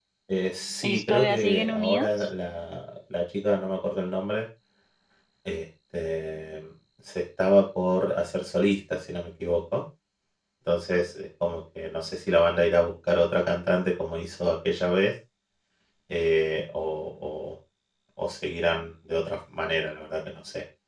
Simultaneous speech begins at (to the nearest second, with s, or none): 1 s